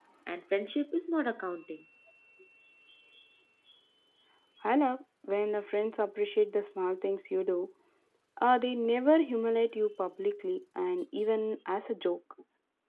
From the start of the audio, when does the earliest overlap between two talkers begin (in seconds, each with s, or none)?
none